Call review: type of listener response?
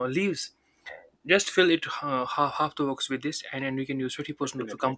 listening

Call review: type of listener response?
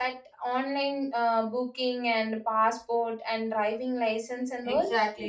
taking over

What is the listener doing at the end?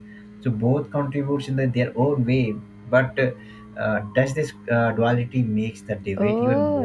taking over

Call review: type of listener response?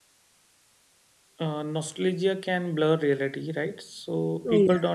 listening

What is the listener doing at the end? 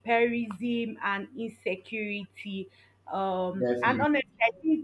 listening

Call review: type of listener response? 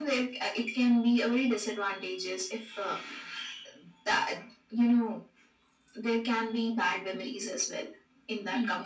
listening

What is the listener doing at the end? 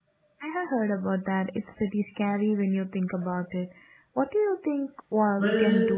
taking over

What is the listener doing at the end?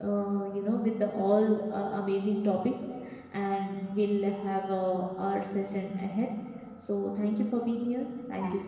taking over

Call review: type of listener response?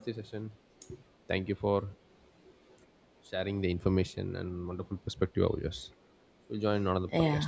taking over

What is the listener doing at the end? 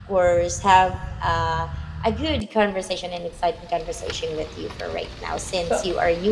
listening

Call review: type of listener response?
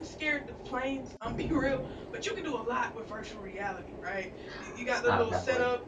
listening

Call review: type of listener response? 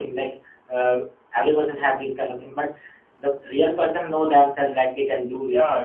taking over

